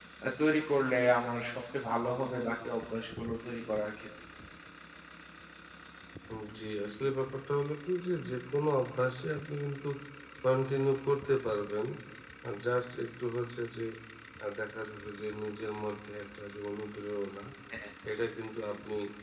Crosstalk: none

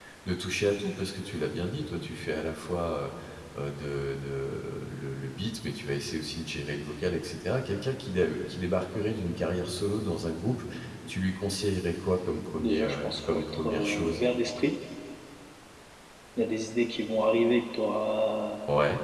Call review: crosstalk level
present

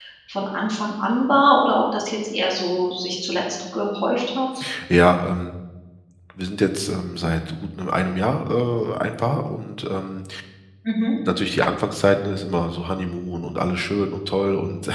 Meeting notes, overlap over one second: none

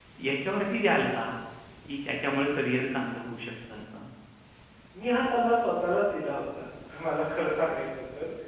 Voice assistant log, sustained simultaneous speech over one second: none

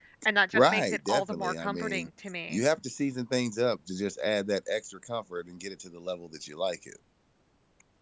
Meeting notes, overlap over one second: present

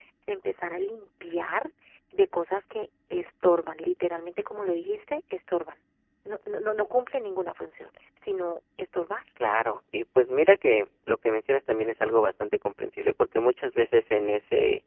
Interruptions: none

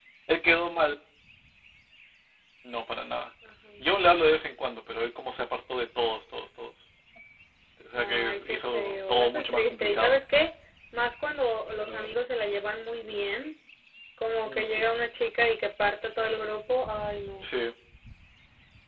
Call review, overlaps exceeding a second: present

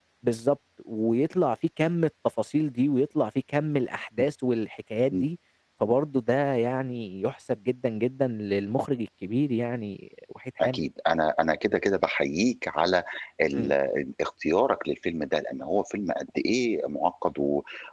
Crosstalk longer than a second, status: none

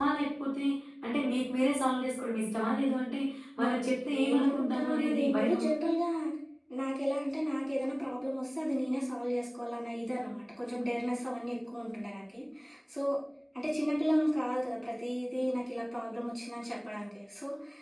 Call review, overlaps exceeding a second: present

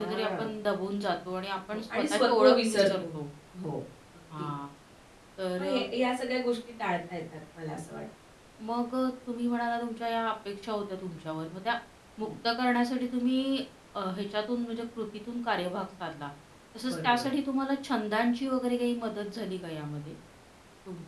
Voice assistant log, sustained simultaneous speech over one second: present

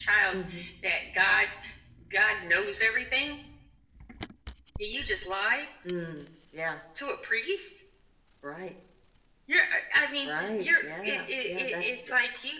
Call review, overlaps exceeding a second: present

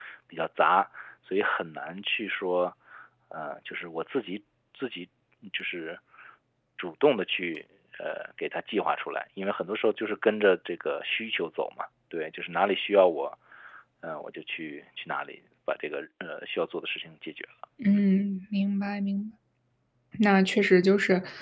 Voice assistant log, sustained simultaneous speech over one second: none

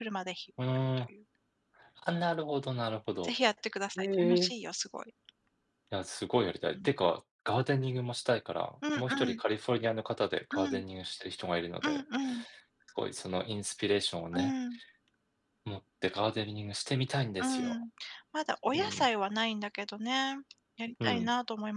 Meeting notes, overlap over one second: none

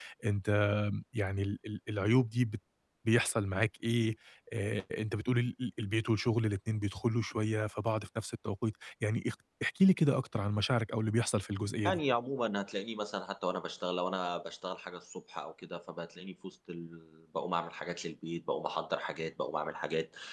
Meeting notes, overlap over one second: none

